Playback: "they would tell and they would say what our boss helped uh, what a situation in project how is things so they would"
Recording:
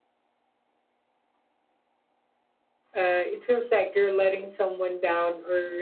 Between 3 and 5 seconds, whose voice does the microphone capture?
user only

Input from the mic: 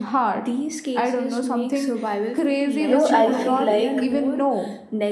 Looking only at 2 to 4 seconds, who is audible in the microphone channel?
both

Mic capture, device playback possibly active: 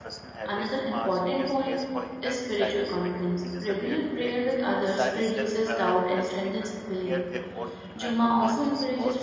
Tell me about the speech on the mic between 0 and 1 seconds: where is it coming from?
both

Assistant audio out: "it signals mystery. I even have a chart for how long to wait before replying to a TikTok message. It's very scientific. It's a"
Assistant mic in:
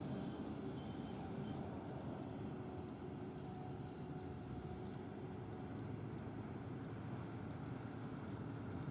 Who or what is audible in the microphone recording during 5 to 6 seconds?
neither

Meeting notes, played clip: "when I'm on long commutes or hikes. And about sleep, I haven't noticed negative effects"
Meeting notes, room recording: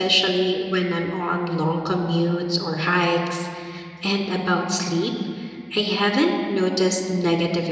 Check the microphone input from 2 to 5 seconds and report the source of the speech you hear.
echo only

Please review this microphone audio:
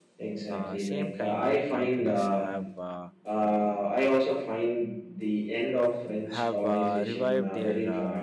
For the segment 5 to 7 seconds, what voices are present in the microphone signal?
both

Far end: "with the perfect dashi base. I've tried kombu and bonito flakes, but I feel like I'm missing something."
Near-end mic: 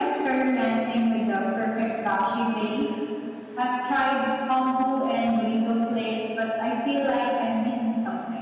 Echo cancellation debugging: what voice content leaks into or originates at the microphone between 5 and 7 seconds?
echo only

